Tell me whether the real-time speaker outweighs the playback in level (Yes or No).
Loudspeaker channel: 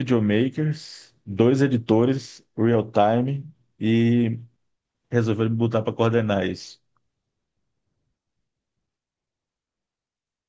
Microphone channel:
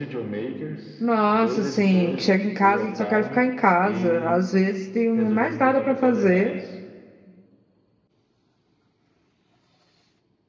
Yes